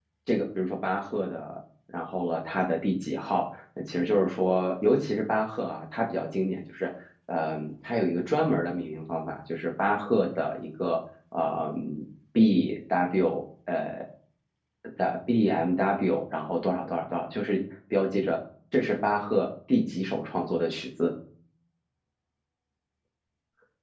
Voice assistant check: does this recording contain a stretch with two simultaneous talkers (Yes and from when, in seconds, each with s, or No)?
No